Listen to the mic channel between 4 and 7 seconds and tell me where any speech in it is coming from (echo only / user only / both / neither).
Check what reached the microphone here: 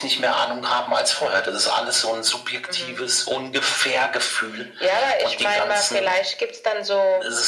echo only